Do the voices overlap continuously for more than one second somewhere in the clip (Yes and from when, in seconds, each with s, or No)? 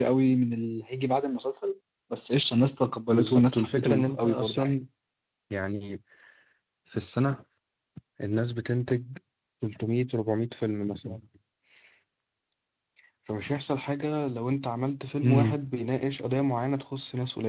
Yes, from 3.1 s